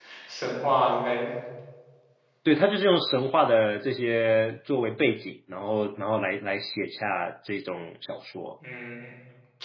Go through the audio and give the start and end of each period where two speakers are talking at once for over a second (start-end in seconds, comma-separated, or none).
none